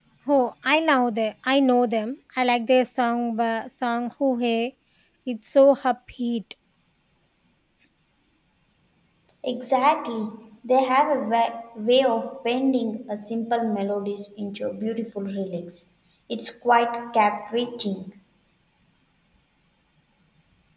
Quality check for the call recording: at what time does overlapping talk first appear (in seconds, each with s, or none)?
none